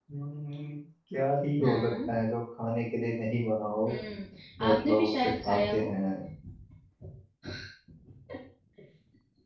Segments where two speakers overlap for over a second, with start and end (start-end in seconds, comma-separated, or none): 4.6-5.9